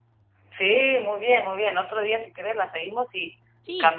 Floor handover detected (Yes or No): No